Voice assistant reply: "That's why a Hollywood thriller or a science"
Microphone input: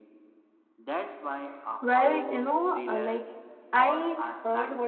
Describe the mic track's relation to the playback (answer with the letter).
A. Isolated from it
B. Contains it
B